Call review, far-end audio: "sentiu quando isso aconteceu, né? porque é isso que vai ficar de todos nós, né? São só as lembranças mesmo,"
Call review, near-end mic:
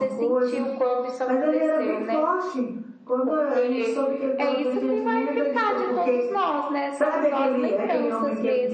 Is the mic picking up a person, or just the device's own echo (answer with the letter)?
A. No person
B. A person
B